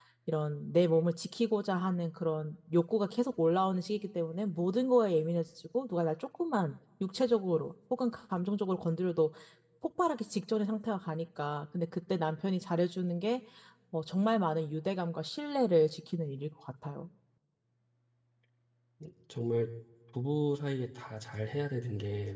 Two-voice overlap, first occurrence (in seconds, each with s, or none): none